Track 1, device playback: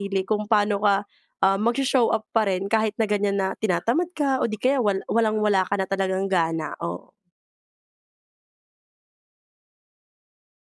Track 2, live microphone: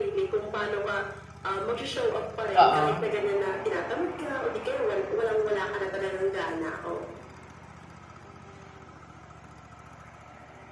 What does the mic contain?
both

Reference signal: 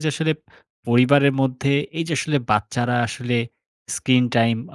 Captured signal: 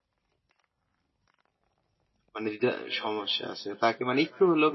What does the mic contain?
user only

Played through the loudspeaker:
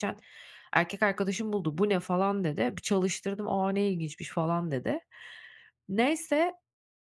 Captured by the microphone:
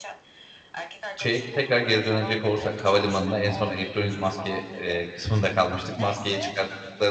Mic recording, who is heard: both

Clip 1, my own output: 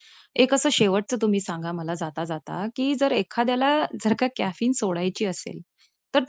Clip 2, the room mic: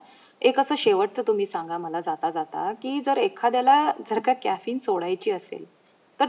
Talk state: echo only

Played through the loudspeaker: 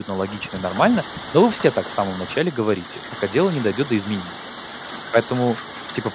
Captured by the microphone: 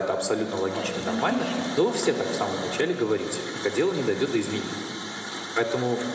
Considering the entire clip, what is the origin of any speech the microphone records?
both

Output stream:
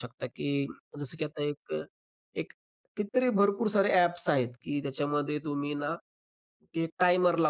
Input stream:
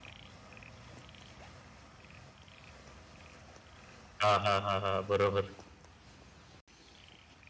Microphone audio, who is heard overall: user only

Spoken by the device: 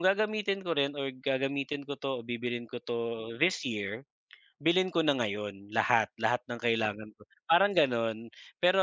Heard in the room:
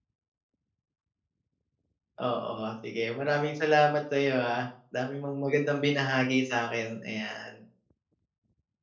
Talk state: user only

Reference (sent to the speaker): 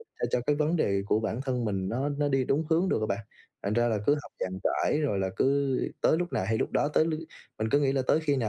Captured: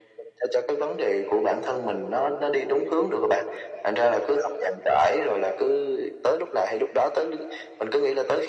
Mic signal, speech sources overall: echo only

